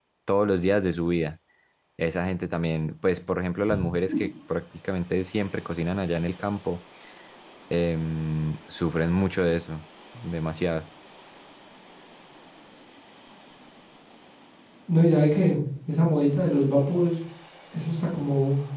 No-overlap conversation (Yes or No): Yes